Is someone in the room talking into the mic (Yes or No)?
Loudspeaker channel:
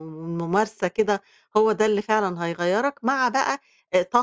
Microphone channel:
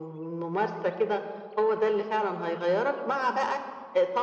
No